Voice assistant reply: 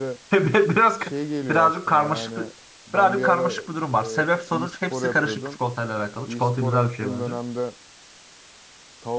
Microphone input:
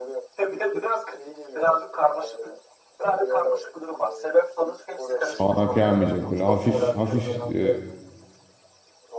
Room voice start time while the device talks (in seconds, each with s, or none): 5.2 s